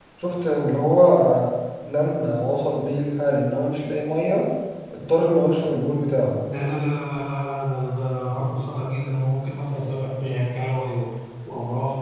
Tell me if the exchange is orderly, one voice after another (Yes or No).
Yes